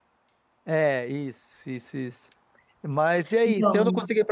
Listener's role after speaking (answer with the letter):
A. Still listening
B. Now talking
A